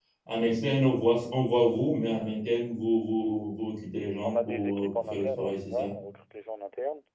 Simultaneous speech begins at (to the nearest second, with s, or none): 4 s